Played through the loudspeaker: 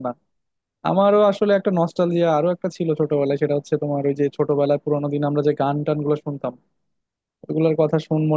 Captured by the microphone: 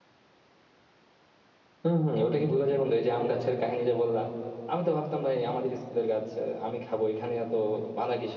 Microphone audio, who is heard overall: user only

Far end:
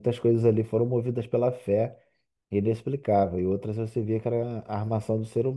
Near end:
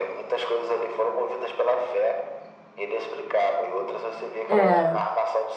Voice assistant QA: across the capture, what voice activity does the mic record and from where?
both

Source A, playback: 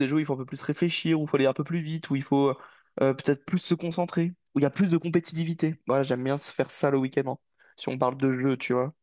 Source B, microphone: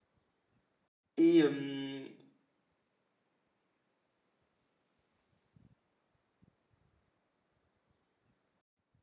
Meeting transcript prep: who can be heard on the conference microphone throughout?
user only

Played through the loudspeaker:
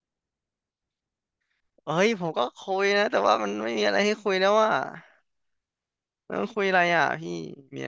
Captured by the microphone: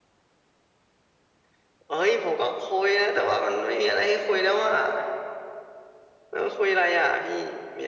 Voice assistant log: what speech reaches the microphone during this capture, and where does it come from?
echo only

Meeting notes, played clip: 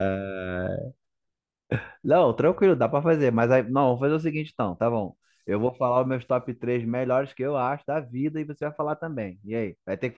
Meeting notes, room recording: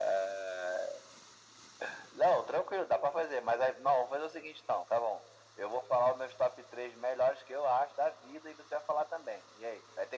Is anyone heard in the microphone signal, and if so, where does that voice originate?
echo only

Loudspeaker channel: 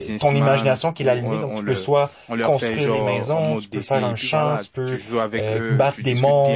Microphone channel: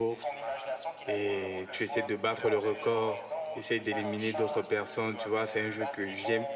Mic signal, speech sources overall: both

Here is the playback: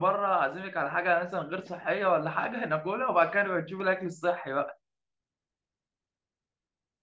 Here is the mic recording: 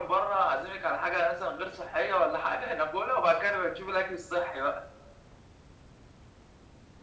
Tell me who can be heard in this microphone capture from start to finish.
echo only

